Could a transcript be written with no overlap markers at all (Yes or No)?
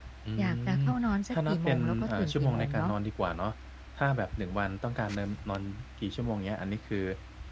No